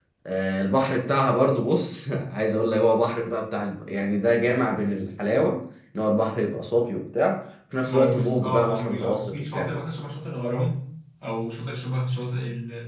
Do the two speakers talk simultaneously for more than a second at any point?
Yes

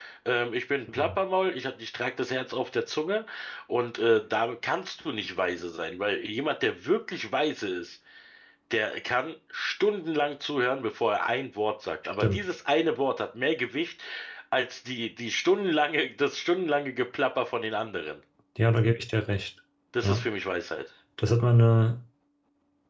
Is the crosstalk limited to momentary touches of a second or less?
Yes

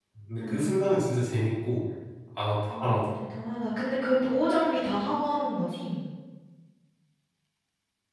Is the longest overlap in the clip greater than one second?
No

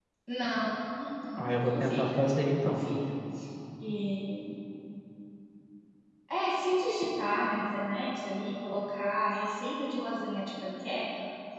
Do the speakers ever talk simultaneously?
Yes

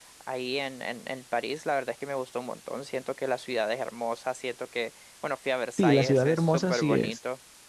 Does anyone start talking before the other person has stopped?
Yes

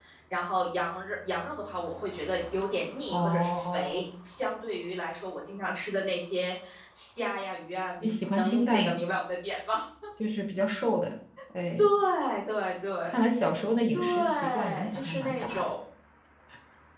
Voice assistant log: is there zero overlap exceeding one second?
No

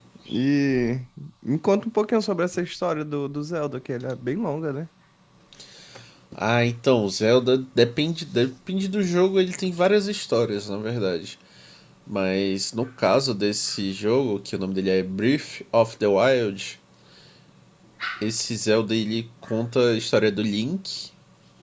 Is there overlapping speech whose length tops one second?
No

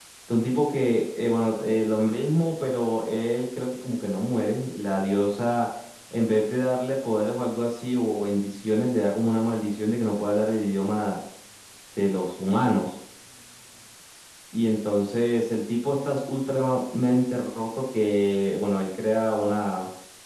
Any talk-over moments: No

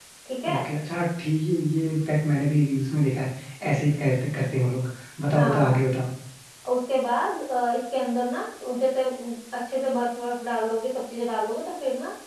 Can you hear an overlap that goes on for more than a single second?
No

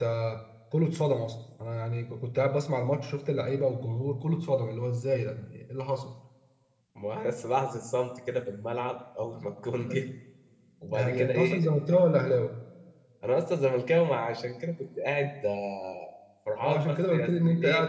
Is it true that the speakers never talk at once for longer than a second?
No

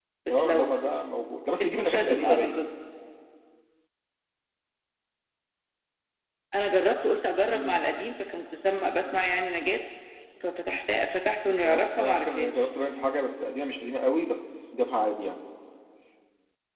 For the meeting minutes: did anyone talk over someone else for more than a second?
Yes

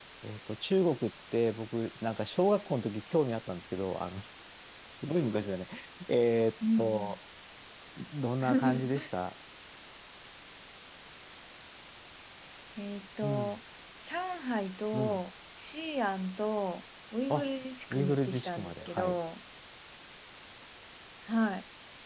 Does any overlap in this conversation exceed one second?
Yes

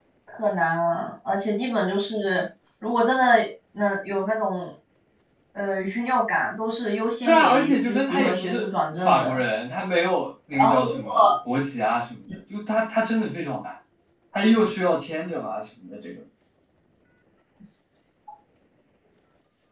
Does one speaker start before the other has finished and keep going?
Yes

